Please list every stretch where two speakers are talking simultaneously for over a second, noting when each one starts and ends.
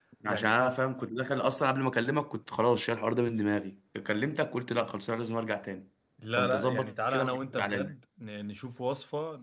6.4-7.9

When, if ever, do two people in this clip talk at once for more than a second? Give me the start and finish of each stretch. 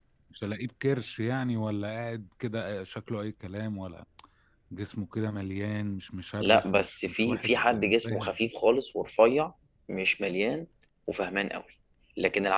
6.4-8.3

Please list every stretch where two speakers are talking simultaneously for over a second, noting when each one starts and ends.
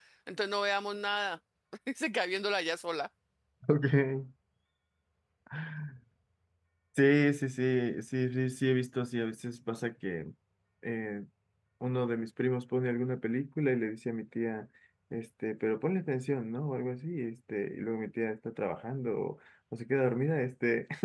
none

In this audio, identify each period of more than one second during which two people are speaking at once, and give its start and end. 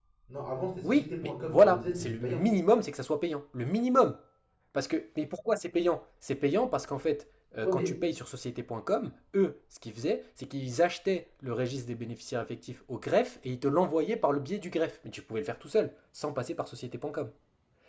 0.8-2.4

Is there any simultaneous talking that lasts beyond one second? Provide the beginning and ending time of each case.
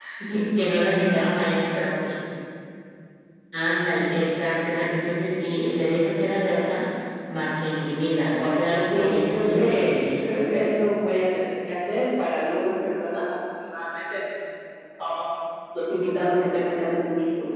8.7-10.3

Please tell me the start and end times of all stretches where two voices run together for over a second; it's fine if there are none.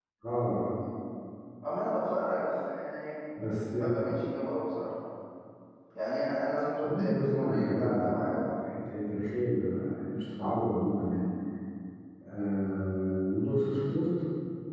6.8-8.3

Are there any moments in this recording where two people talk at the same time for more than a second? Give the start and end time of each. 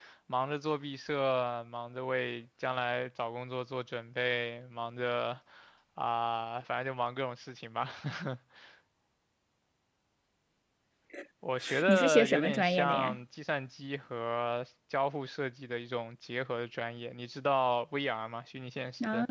11.8-13.2

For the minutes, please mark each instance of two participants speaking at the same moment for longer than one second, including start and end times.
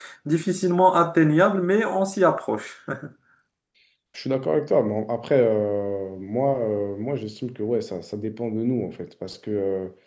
none

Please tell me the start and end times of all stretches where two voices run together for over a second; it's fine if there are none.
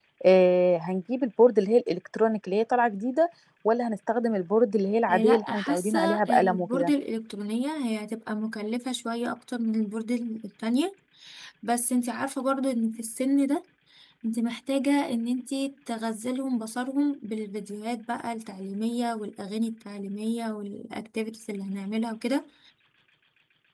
5.1-6.9

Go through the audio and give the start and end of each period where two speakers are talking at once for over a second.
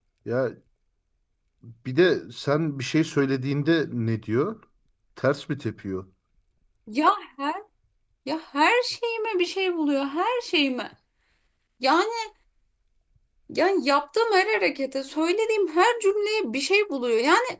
none

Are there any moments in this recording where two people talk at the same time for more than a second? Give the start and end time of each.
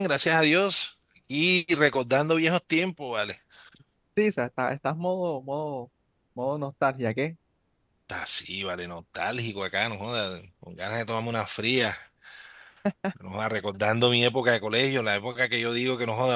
none

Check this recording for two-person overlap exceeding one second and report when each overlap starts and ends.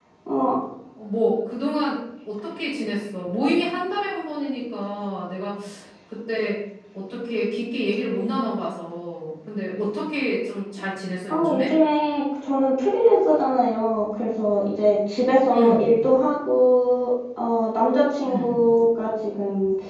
none

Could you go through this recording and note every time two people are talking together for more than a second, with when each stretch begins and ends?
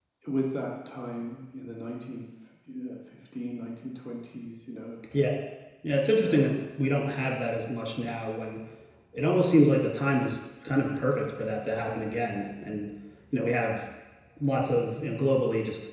none

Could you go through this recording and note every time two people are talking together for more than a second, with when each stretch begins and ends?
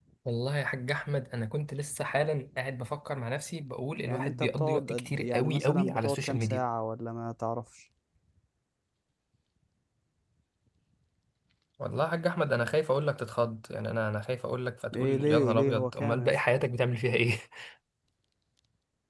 4.0-6.6, 15.0-16.4

